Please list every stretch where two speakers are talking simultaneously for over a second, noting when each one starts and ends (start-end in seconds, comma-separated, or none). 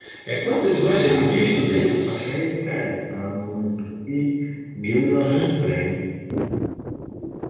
1.0-2.3